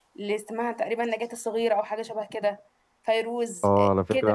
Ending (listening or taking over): taking over